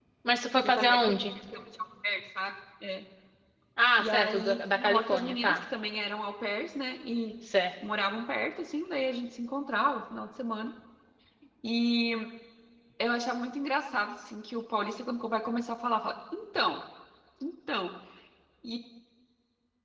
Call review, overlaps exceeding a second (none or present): present